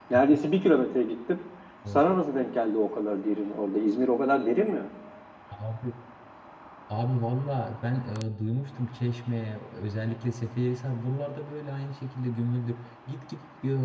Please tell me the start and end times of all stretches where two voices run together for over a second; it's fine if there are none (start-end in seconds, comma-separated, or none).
none